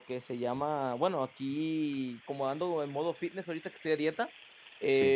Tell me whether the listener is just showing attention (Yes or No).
Yes